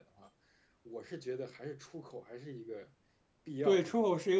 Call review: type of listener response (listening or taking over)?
taking over